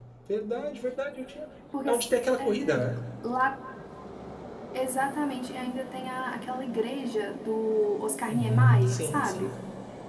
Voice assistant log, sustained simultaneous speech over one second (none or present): present